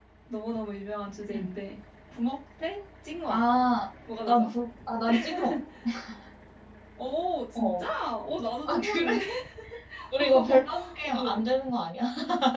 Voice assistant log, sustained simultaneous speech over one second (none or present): present